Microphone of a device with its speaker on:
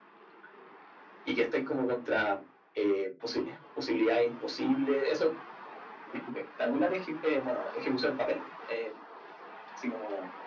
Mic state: echo only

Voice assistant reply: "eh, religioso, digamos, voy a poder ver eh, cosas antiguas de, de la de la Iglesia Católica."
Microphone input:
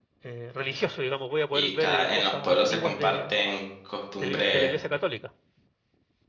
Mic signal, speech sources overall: both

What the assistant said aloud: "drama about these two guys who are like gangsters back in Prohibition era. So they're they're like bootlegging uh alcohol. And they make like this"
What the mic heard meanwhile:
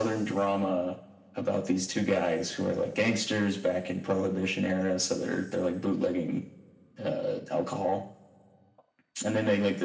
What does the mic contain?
echo only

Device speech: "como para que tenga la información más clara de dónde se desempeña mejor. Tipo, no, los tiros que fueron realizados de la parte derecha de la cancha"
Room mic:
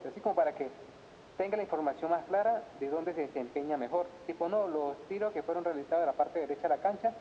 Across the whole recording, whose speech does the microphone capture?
echo only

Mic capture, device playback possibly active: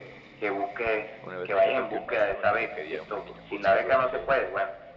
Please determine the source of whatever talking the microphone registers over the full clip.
both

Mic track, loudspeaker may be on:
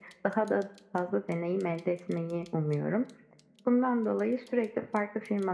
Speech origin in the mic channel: echo only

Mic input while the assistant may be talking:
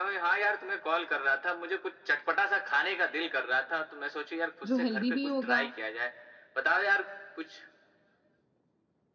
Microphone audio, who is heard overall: both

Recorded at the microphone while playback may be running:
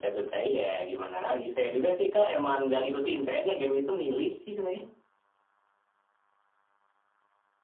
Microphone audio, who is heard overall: echo only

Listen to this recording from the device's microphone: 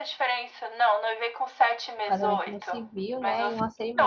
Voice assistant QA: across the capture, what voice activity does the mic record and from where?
both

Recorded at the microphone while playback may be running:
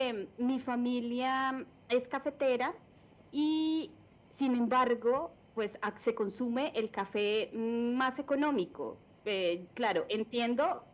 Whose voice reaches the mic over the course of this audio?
echo only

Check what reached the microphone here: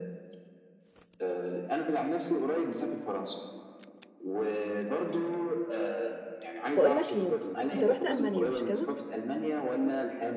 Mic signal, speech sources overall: both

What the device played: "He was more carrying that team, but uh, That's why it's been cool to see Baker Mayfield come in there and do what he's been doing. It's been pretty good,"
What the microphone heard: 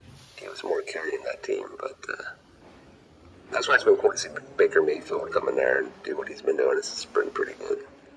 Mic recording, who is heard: echo only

